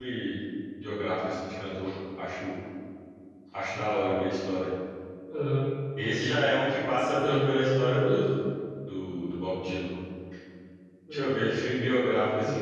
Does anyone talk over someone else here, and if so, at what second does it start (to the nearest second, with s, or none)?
7 s